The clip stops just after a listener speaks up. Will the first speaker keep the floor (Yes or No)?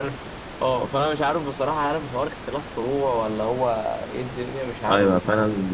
No